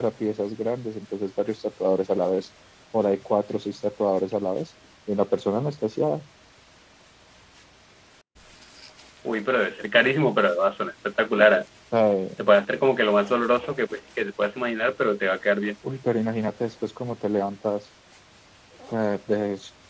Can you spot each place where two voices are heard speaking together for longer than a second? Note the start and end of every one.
none

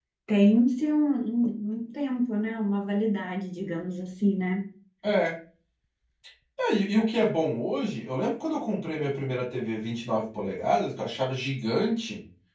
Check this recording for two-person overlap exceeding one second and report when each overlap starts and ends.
none

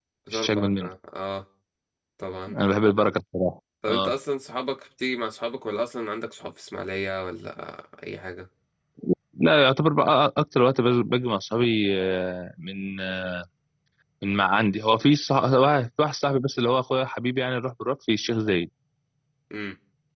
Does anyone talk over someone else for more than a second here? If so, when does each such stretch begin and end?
none

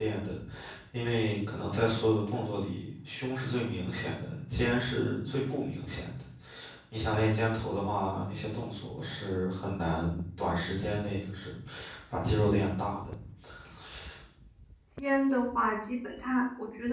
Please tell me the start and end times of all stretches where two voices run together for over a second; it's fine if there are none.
none

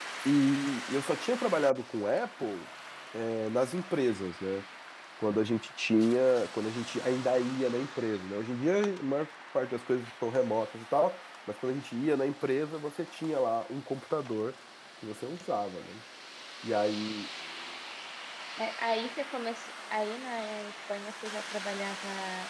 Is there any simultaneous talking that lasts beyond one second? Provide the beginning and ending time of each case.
none

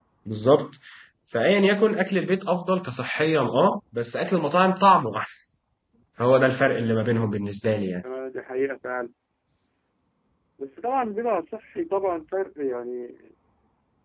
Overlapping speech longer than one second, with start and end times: none

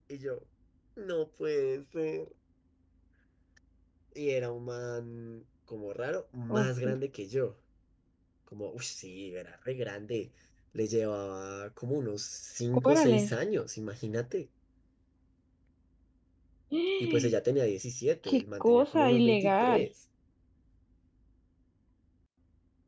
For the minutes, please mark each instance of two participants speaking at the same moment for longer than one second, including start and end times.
18.3-19.9

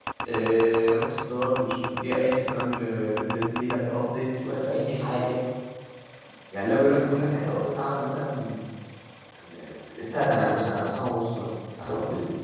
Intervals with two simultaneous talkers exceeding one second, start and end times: none

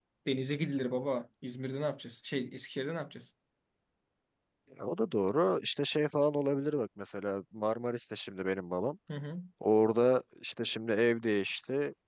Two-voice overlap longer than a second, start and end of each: none

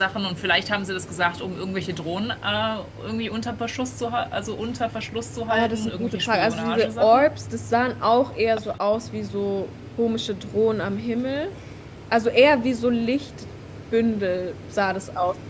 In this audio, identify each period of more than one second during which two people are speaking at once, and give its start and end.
5.5-7.3

